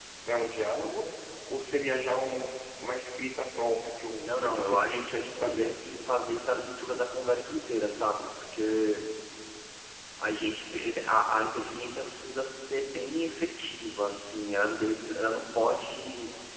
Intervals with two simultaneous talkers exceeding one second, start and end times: 4.2-5.7

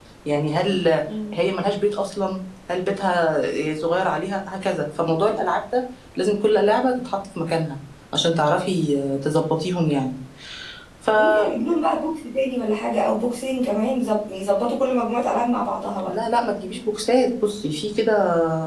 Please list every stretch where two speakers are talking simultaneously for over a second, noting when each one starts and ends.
none

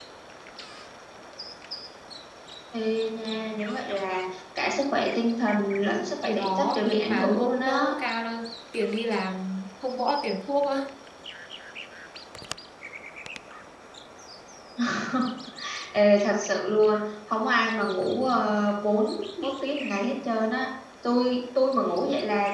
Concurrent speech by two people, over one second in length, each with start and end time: 6.2-7.9

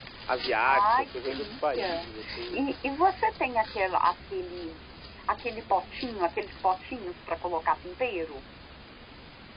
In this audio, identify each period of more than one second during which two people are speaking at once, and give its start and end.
0.6-2.1

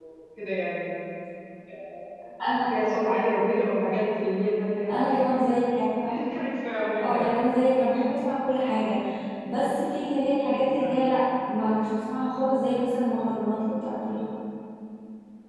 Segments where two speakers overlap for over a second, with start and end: none

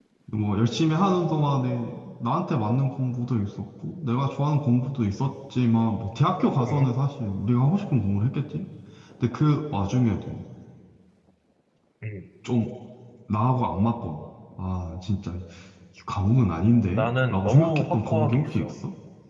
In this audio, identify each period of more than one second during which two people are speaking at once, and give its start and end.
16.9-18.7

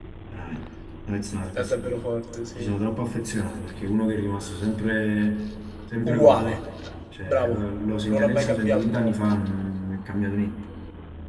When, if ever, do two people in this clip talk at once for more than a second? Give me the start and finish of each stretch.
8.1-9.3

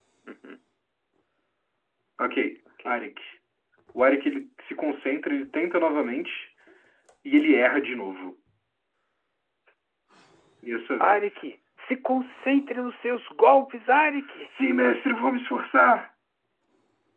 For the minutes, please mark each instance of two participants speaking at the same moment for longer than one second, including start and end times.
none

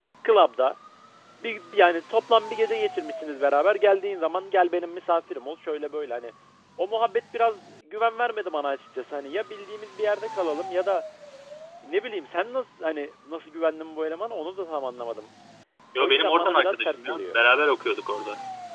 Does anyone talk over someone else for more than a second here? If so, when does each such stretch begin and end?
16.0-17.3

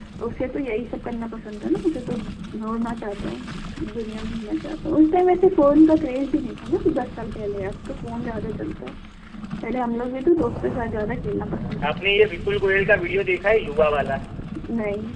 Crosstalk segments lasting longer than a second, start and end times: none

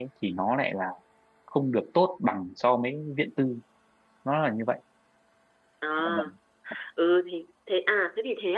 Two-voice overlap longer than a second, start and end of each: none

